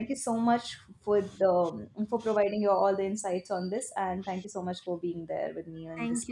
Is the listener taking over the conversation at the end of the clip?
Yes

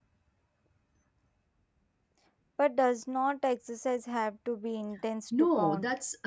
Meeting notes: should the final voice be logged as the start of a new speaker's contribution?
Yes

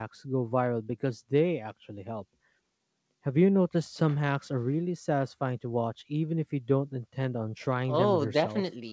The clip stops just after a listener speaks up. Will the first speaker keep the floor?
No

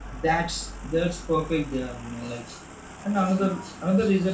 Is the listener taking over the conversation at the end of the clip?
No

